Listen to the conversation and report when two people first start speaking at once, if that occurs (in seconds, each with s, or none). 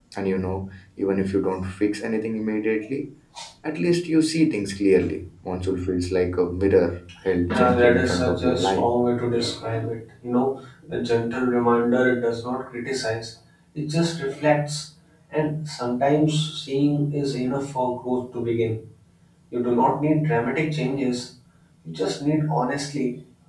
7.5 s